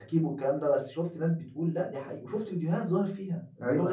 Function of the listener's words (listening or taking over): listening